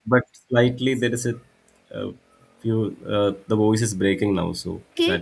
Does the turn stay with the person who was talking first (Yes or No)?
No